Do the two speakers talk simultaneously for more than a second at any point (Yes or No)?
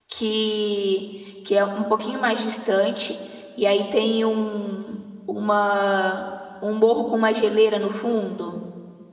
No